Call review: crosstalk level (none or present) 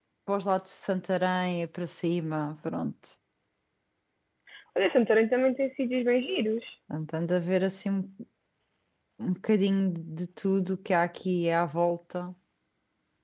none